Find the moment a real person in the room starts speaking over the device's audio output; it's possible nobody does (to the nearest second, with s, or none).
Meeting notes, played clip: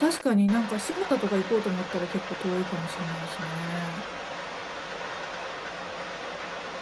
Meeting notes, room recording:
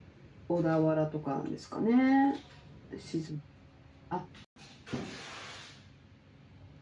0 s